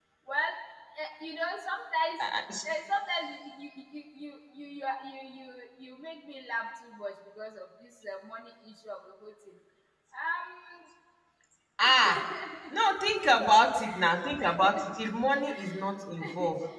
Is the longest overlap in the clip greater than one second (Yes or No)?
No